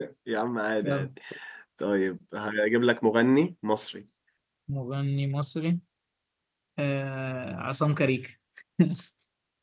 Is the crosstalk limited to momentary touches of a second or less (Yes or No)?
Yes